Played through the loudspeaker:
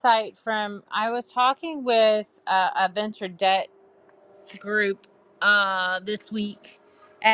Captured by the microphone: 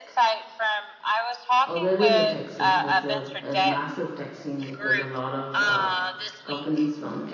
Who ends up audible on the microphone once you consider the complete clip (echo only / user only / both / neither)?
both